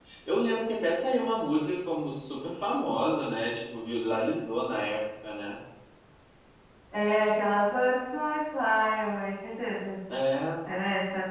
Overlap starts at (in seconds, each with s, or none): none